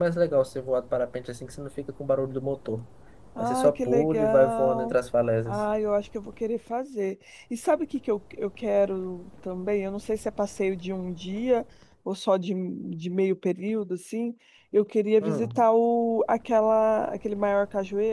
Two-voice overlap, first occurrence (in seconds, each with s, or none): 3.4 s